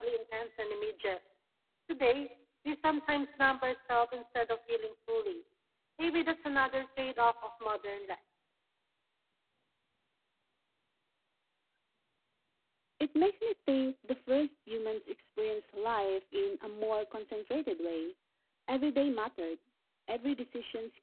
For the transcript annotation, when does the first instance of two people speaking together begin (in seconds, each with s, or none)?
none